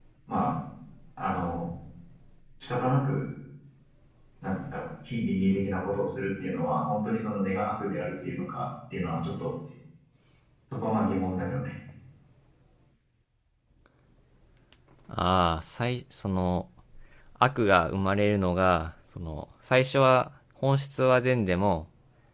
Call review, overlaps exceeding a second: none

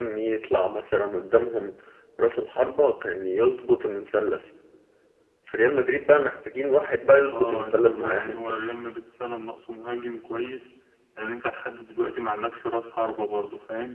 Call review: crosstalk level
present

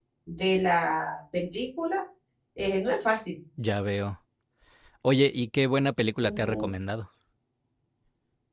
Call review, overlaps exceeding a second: none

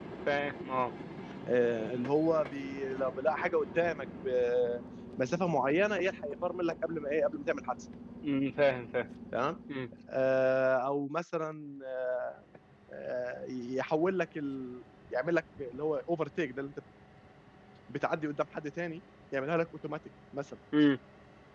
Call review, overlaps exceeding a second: none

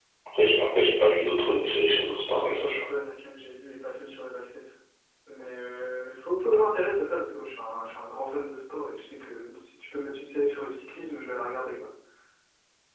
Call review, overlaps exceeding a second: present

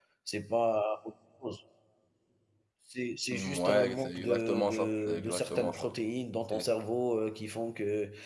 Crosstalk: present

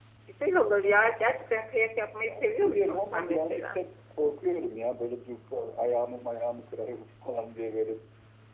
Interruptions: present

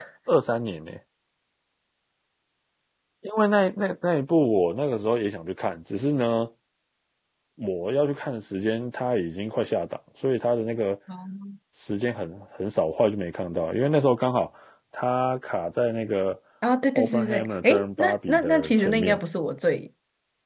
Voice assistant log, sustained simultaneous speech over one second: present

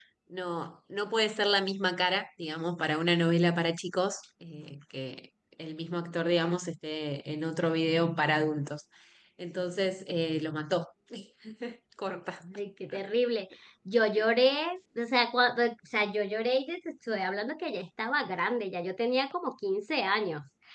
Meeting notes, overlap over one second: none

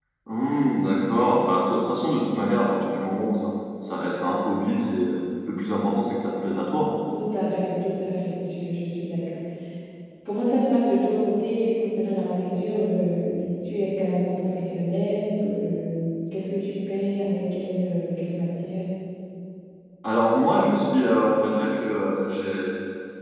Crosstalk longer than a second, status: none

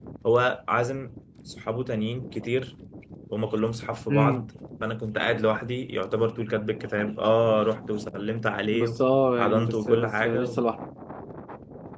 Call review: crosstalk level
present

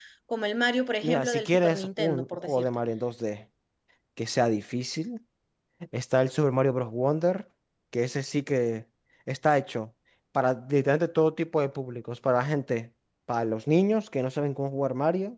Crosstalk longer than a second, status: present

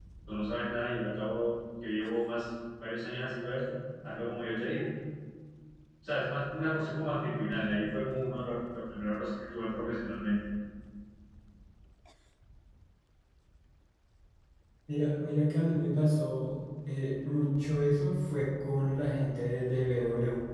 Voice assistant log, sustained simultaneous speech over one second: none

